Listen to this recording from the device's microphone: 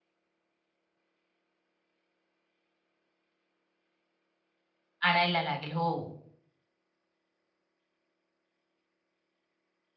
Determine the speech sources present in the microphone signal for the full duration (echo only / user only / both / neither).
user only